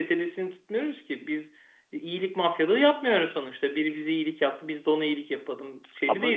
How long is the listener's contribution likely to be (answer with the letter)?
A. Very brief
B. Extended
A